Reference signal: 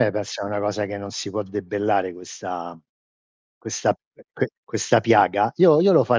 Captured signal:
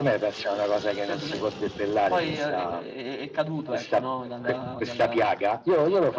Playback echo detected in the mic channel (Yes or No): Yes